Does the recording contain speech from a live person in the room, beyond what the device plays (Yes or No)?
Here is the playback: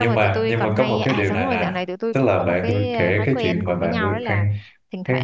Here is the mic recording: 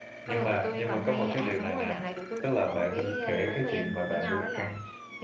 No